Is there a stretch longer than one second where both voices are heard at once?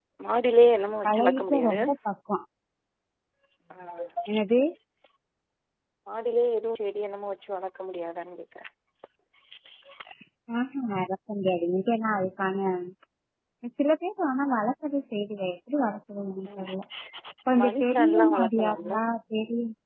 Yes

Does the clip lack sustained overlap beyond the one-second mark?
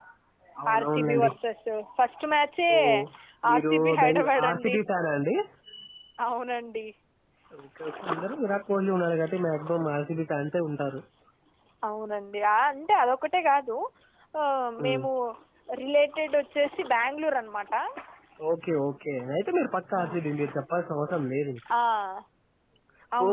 No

